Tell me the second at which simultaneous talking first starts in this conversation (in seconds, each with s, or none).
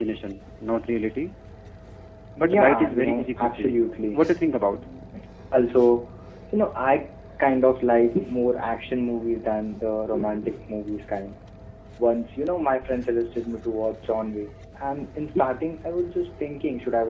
2.5 s